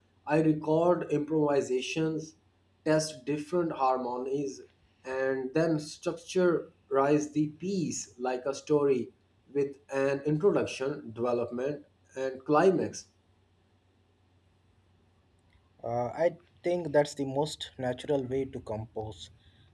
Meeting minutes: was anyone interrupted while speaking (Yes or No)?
No